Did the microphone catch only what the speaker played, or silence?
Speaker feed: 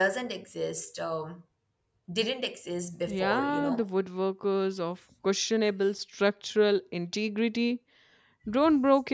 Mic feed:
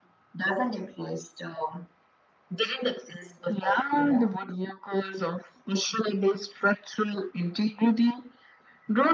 Yes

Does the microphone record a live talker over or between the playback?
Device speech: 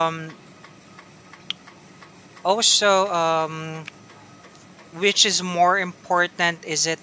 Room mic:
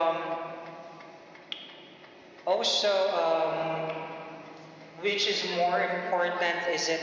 Yes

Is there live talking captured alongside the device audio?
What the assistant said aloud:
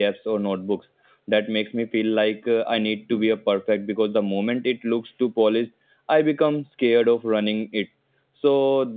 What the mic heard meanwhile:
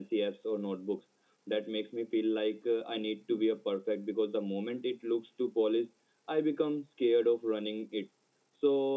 No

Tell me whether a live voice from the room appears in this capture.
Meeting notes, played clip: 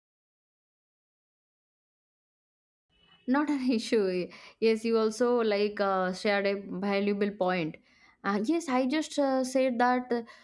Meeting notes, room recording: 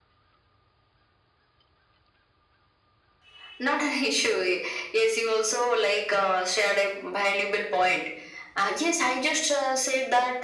No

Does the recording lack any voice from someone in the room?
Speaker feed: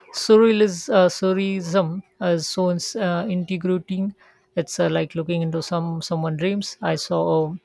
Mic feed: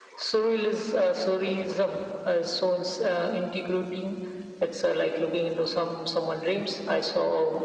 Yes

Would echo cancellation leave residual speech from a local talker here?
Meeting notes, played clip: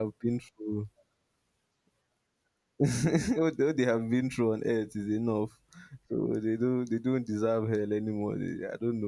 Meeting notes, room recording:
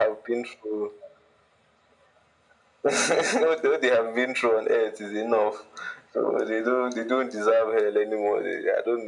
No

